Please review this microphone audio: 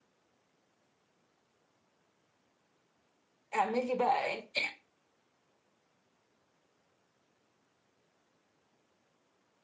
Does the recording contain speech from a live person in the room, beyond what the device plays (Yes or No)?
Yes